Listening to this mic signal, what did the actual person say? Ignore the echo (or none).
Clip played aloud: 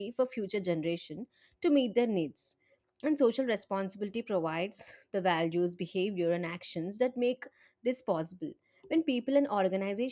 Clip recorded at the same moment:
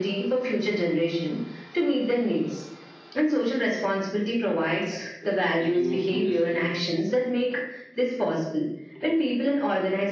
Yes, If you do this